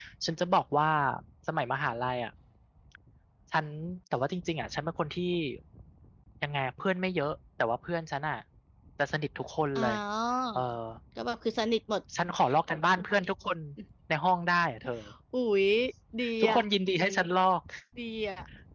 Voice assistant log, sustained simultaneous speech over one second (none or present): none